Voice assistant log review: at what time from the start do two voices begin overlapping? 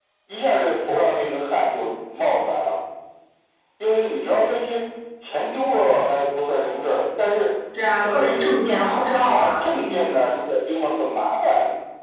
8.0 s

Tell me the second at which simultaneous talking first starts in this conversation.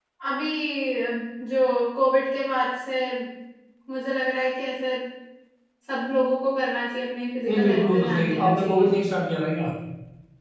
7.4 s

